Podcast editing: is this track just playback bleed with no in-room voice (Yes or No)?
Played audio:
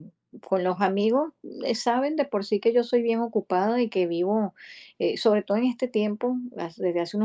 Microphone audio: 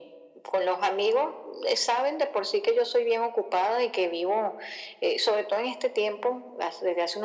Yes